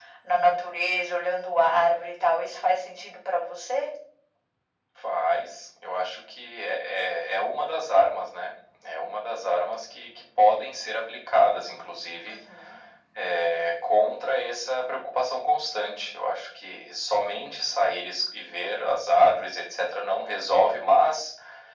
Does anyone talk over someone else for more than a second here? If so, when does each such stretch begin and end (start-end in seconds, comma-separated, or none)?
none